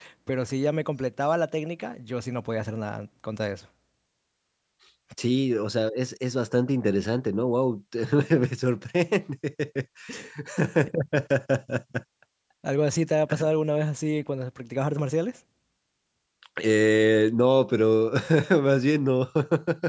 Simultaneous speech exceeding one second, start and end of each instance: none

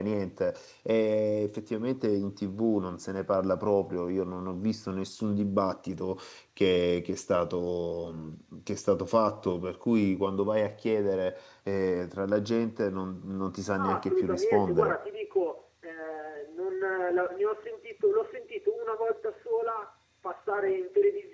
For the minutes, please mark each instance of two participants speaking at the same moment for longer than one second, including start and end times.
13.8-15.0

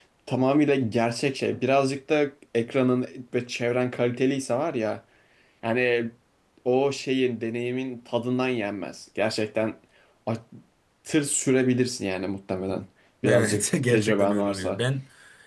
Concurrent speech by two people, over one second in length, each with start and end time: 13.2-14.8

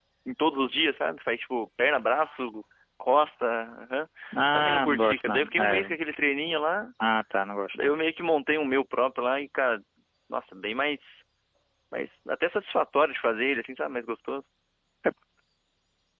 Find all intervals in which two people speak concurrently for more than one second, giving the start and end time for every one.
4.5-5.9

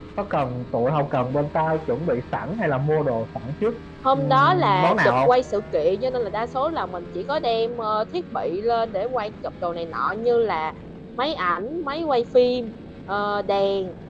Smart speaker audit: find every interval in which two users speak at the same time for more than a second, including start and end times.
4.1-5.3

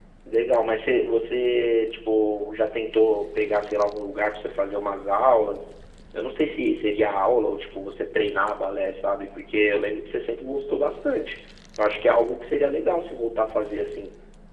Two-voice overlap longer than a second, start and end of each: none

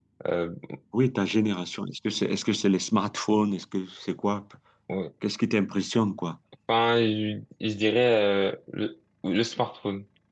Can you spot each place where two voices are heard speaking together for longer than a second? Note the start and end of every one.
none

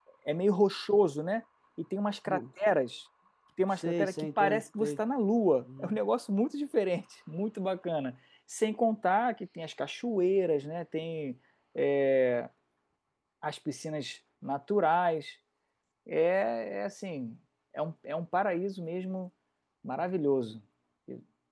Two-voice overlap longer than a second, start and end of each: 3.7-5.0

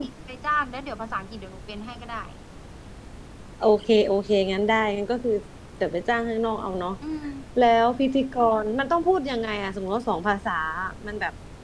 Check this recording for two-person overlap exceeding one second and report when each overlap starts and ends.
none

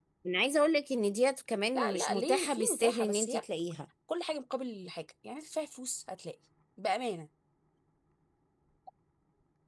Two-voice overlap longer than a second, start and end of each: 1.8-3.4

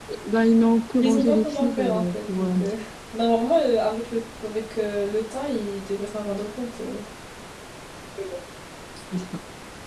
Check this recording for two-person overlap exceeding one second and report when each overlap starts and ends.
1.0-2.7

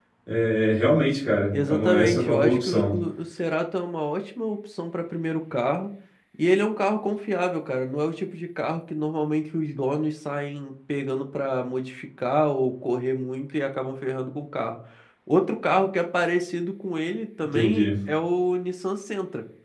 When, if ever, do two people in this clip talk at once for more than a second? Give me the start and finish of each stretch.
1.5-2.9

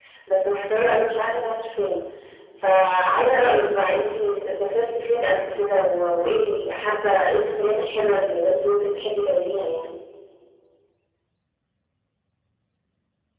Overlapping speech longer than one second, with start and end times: none

